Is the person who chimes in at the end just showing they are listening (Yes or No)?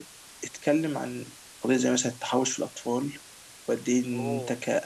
Yes